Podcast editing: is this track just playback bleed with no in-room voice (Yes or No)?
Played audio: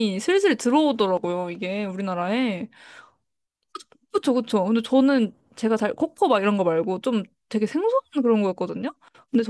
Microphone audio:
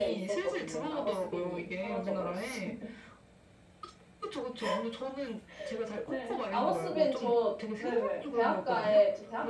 No